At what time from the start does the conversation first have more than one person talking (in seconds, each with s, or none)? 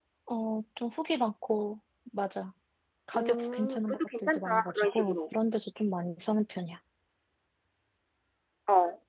3.1 s